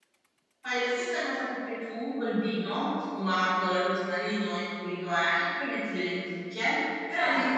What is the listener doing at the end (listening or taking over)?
listening